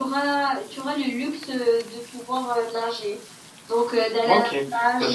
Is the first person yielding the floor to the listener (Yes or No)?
Yes